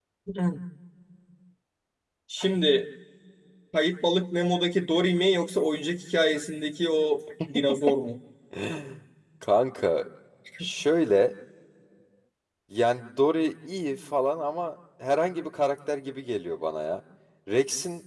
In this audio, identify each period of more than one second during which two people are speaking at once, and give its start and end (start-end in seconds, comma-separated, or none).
none